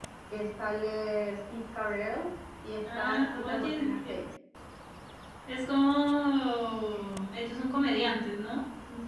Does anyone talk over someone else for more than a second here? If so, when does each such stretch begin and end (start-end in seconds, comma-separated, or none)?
3.0-4.2